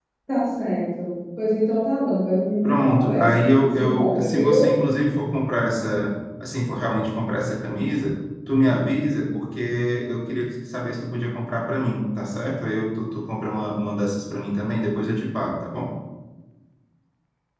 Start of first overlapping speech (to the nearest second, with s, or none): 3 s